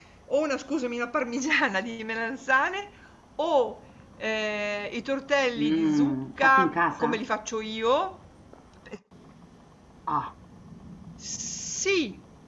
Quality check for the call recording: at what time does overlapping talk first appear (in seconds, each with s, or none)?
5.6 s